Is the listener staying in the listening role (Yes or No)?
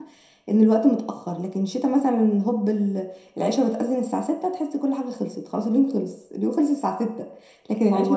Yes